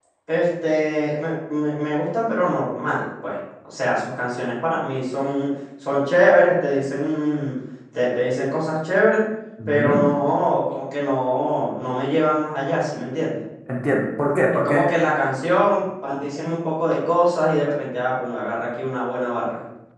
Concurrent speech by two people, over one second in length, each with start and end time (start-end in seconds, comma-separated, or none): none